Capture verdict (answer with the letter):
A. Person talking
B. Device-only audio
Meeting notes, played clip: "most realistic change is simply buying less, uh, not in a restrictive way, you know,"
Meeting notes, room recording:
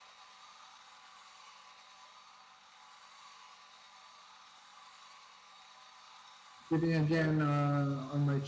A